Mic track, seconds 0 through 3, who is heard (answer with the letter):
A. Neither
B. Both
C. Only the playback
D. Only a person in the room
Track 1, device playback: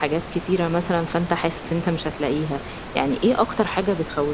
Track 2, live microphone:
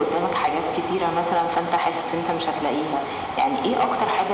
C